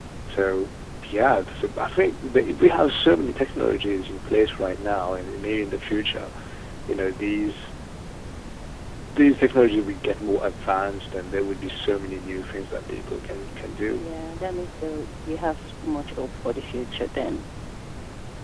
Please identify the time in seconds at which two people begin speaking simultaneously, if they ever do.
none

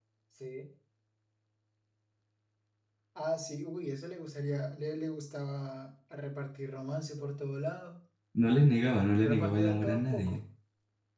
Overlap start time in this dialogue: 9.2 s

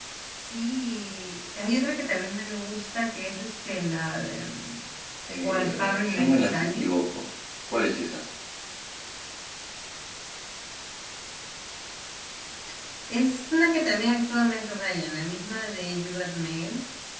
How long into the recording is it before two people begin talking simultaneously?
5.4 s

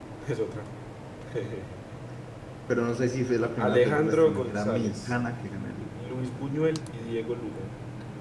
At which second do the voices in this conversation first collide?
3.6 s

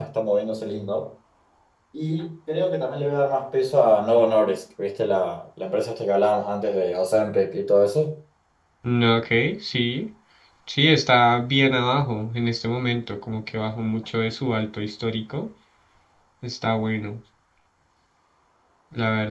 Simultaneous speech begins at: none

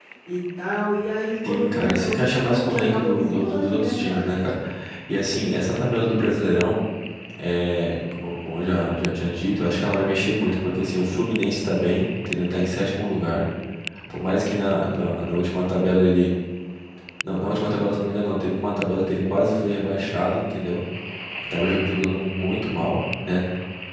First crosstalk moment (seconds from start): 1.4 s

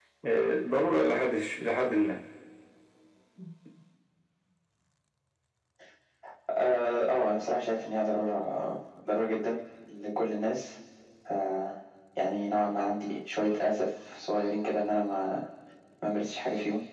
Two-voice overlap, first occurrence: none

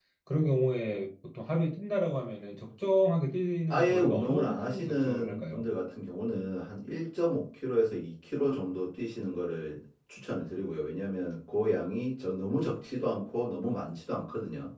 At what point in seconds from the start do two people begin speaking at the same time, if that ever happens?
3.7 s

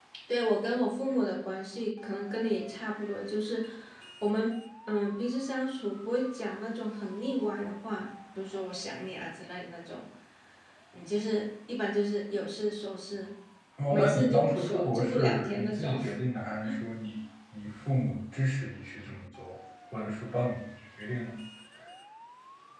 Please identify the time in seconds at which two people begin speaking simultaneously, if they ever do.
13.9 s

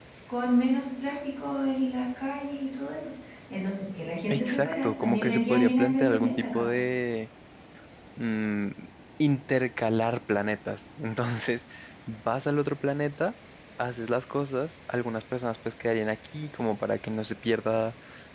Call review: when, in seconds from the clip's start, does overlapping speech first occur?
4.3 s

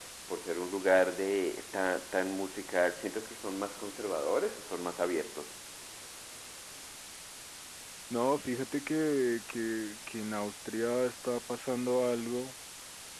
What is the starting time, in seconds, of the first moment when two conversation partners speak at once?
none

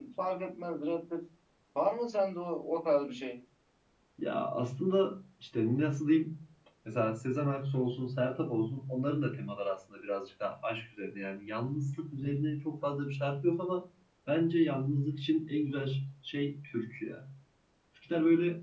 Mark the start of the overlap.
none

